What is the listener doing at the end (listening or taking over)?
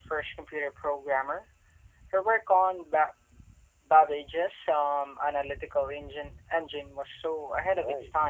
taking over